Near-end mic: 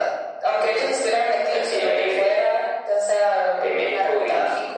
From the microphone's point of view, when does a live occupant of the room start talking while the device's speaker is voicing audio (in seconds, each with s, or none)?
none